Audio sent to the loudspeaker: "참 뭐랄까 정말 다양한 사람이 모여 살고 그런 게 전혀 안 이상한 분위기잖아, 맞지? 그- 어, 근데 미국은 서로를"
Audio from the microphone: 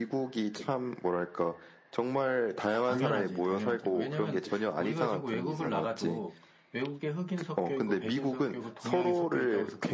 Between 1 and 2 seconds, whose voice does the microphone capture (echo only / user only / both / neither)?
echo only